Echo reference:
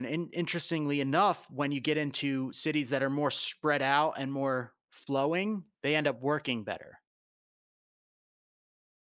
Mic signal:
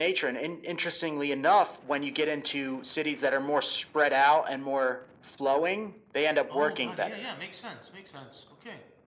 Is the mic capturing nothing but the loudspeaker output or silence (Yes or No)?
No